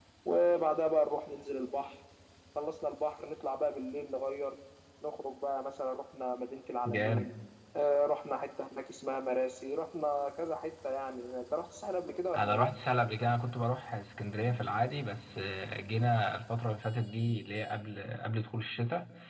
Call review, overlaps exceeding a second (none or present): none